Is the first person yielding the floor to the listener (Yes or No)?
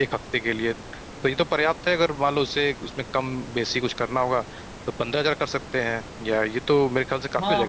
Yes